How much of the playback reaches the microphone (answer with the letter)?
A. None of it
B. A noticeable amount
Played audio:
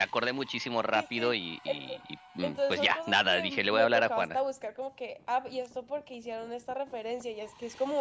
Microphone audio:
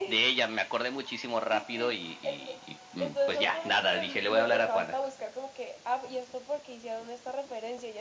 B